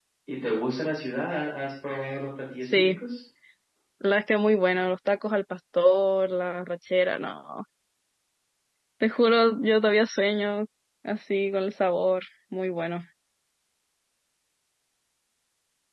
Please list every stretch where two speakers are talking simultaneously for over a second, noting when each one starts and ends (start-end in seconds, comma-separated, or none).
none